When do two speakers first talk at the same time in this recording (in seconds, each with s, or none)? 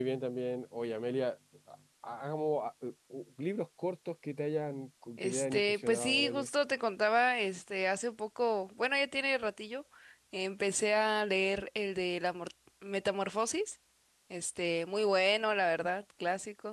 5.2 s